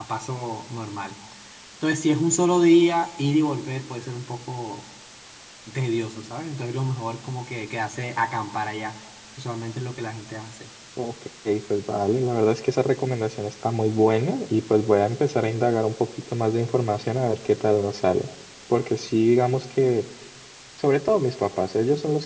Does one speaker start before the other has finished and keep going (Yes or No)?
No